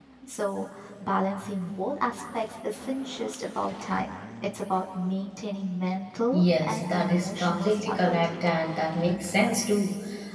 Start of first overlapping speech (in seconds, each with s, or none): 6.3 s